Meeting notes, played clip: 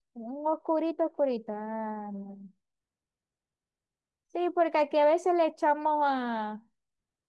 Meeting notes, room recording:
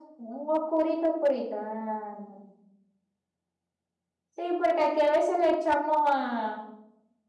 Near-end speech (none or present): none